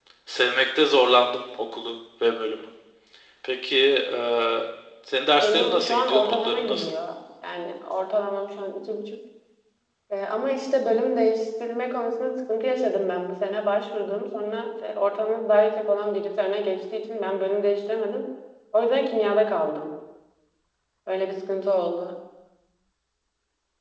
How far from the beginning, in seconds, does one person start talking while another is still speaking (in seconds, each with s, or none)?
5.4 s